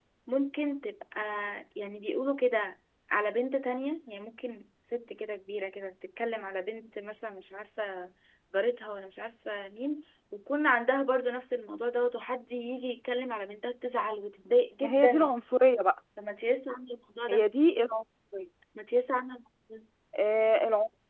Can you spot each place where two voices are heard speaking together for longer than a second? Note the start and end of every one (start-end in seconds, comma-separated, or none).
none